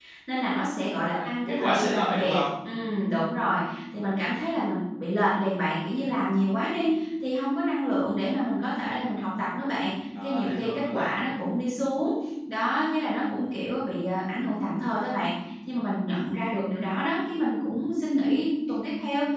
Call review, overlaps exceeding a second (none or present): present